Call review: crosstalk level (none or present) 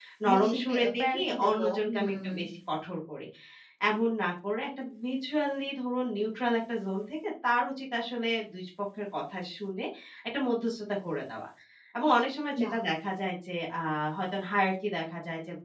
present